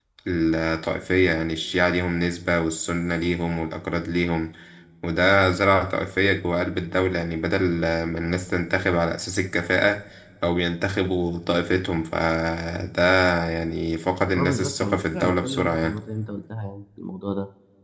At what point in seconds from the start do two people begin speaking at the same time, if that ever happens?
14.3 s

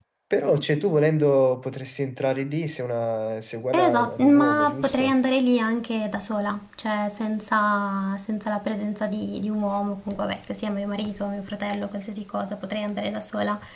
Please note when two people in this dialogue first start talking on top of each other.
3.7 s

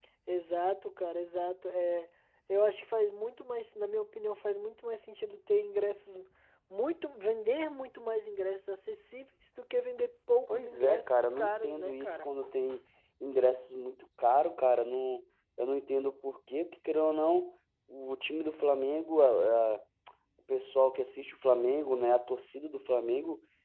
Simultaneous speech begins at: 10.5 s

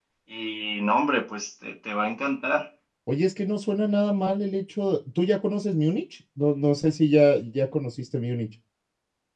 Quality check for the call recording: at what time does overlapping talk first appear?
none

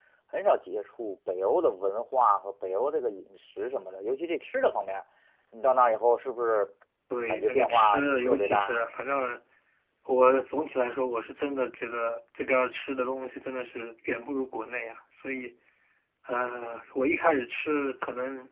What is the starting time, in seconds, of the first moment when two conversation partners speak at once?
7.3 s

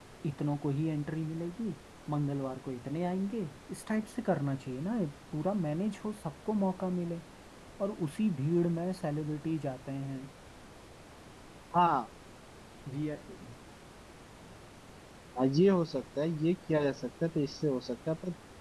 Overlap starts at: none

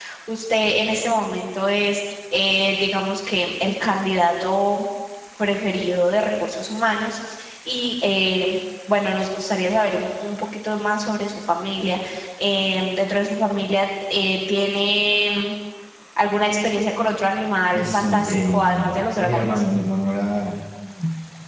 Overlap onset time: 17.7 s

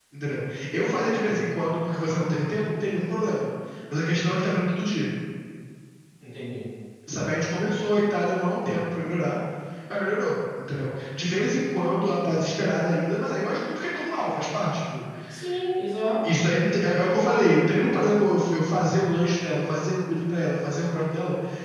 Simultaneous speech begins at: 0.7 s

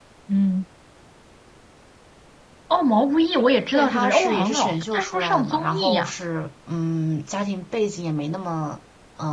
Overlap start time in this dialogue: 3.7 s

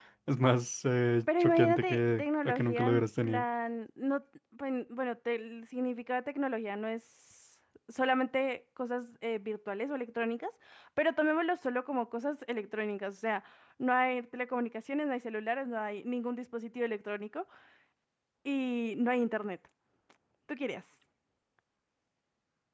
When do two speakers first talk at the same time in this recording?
1.3 s

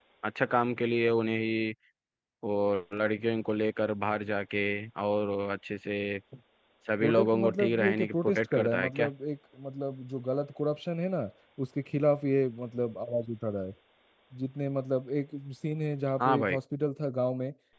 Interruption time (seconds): 7.0 s

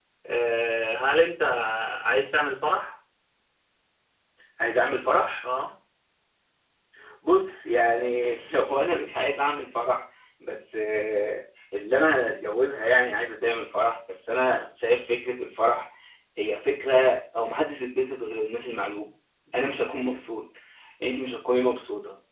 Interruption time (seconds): none

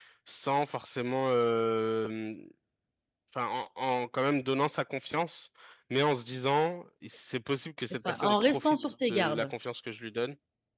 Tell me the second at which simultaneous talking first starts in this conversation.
7.8 s

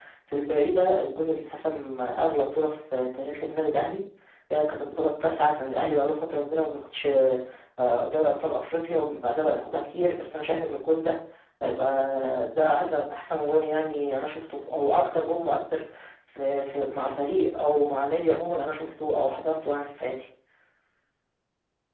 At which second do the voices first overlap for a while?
none

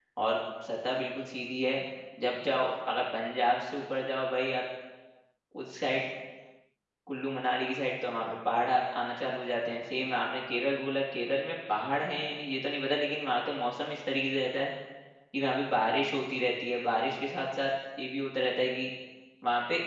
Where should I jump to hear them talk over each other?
none

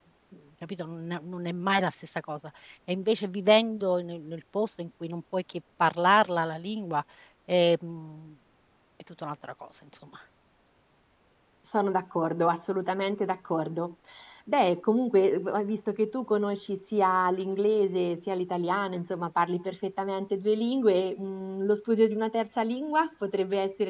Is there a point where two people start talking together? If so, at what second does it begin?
none

